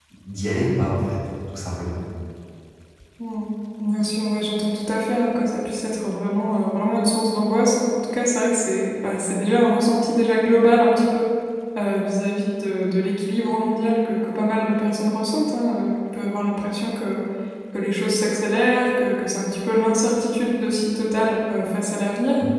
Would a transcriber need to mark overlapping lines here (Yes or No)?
No